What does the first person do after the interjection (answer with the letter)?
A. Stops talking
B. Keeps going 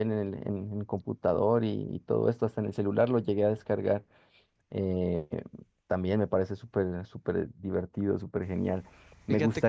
B